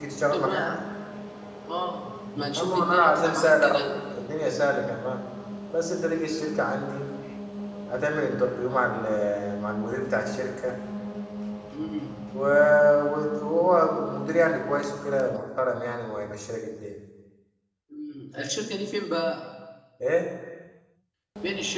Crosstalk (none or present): present